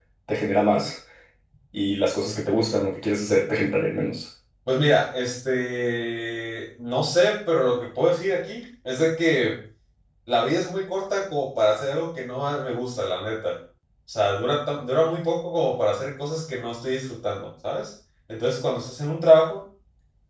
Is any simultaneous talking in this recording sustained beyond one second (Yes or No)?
No